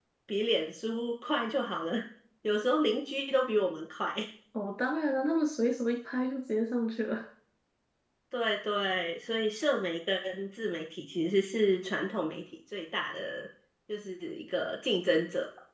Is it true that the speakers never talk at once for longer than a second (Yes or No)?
Yes